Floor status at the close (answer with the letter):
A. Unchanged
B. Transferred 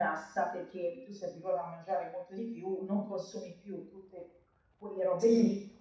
B